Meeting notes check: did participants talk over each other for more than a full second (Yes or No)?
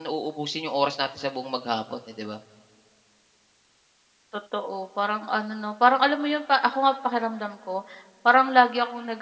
No